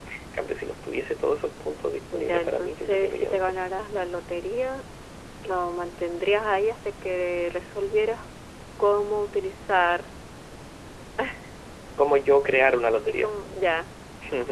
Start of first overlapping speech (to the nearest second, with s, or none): 2 s